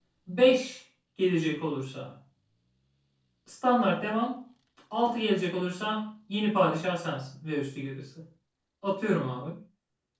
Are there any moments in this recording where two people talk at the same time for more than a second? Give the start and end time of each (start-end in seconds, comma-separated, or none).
none